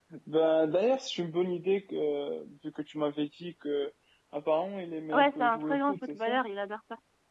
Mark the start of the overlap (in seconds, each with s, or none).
5.2 s